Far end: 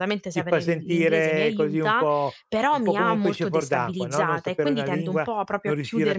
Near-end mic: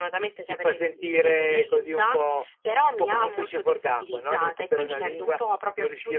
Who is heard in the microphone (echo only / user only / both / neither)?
echo only